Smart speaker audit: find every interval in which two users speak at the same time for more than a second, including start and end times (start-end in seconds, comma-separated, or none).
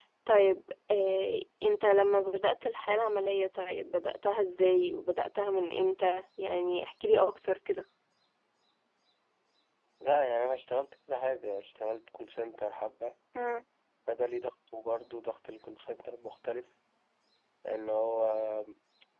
none